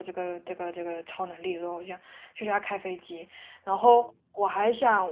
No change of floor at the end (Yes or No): Yes